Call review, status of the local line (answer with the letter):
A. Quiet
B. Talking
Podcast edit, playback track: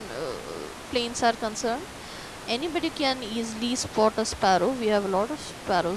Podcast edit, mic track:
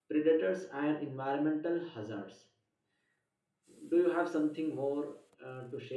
B